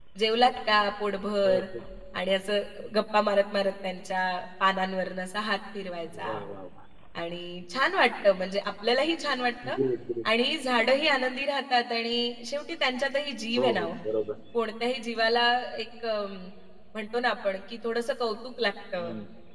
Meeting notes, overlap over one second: none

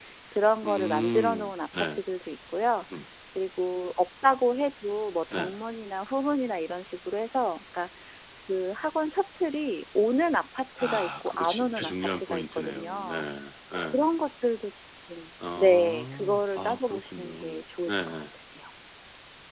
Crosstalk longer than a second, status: present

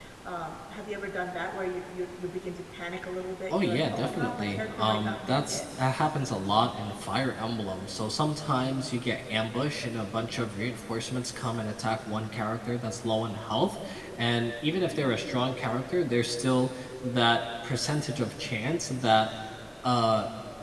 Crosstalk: present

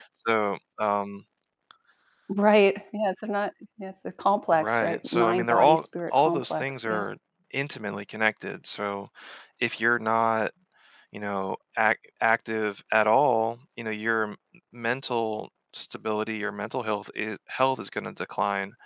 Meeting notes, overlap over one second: present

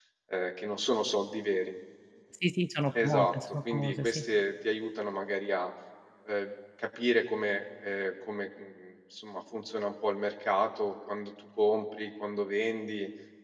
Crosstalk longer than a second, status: present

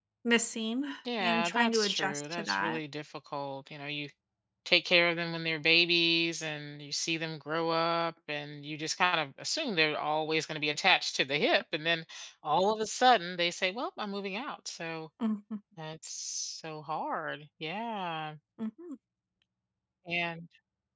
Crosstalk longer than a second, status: present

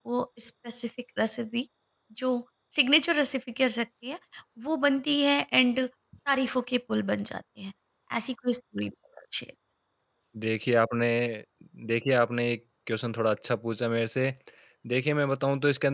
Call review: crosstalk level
none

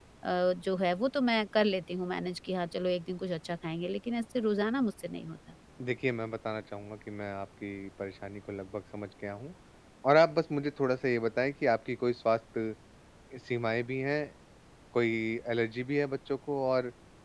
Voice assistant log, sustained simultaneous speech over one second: none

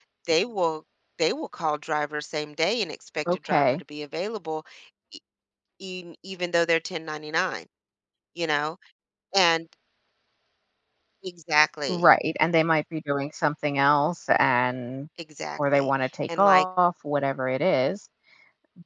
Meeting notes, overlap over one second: none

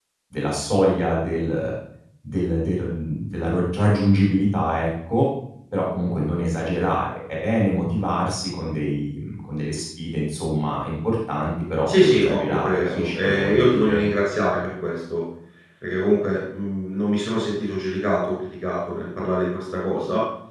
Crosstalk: present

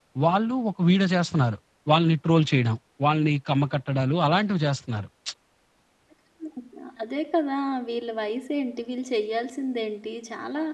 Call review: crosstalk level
none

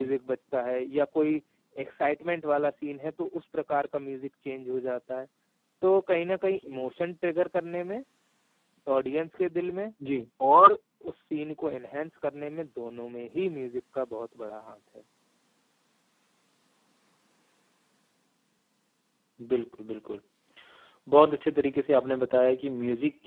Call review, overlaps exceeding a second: none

